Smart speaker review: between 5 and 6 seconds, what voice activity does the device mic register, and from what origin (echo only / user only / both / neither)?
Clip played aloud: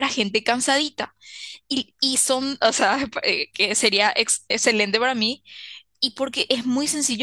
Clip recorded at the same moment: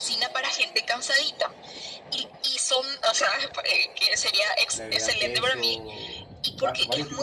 both